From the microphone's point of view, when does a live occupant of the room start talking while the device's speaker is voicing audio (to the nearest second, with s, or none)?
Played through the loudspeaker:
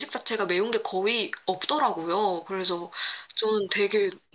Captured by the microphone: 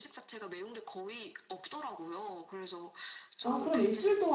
3 s